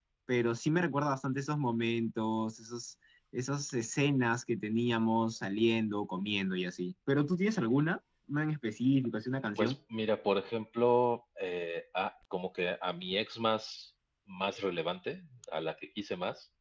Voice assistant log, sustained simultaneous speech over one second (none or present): none